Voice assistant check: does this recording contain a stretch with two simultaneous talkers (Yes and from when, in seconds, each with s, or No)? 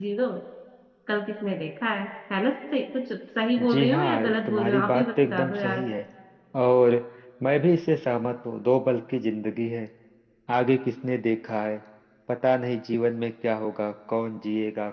Yes, from 3.6 s